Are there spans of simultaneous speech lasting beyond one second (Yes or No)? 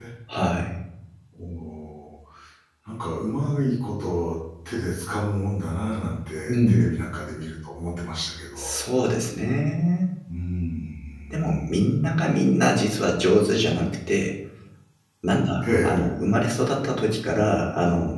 No